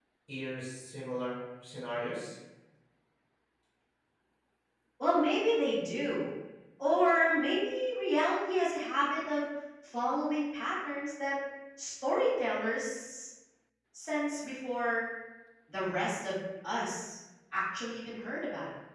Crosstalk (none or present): none